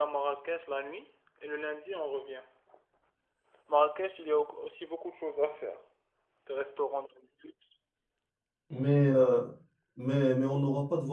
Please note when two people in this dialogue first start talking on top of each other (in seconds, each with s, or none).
none